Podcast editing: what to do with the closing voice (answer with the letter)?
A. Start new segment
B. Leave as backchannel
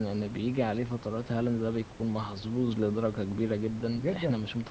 A